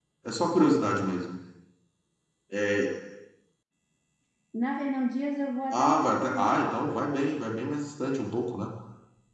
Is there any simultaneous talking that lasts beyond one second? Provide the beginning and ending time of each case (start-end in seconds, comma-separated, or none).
5.7-7.2